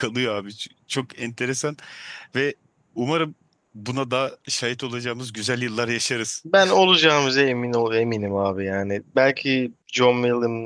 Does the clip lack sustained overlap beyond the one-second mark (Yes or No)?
Yes